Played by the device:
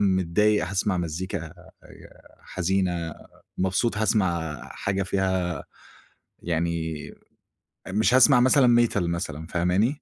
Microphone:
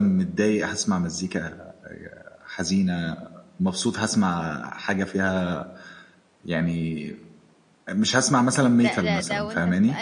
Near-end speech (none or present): present